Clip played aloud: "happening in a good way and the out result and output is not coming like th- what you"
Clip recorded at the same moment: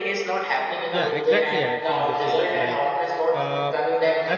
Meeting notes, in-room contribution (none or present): present